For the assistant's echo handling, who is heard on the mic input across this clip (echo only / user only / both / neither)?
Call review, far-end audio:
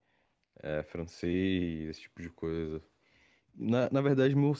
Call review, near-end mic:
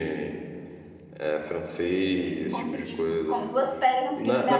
both